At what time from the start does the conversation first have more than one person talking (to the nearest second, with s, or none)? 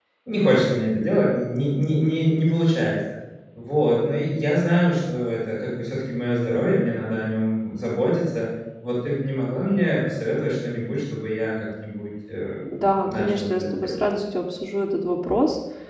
13 s